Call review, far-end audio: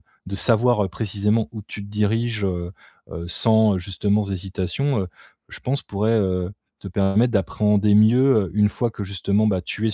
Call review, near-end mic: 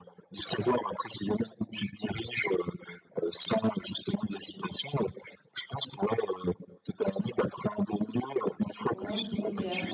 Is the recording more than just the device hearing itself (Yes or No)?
Yes